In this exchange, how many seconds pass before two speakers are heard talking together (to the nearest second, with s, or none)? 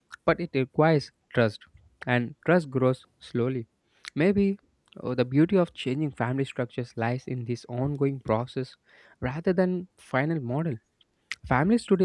none